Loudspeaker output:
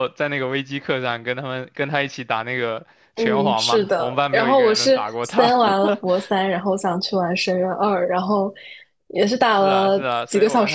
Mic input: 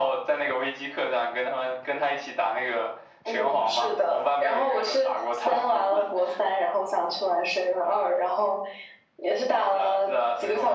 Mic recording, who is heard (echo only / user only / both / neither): echo only